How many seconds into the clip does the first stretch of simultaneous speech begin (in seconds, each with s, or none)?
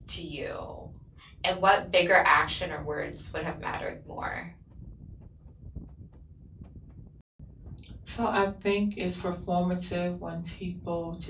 none